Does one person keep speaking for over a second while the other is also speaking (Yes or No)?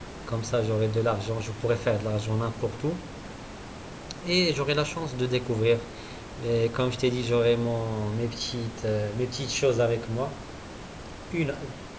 No